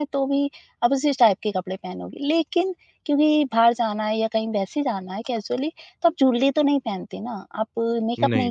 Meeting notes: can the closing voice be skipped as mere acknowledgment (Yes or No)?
Yes